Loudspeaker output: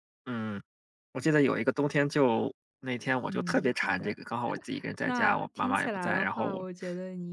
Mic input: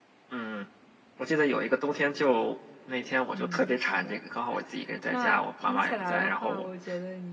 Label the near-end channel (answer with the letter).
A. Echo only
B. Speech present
A